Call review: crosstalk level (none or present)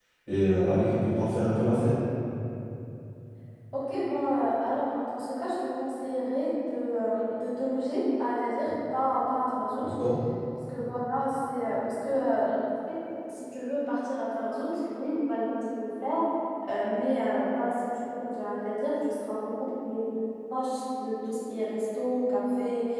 none